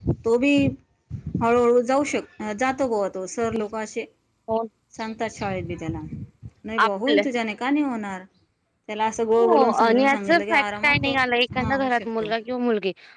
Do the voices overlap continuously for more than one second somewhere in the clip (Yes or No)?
Yes